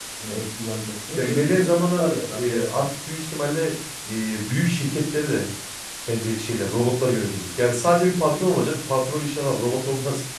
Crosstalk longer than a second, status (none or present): present